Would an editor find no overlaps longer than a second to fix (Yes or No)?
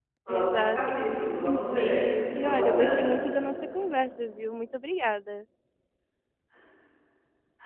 No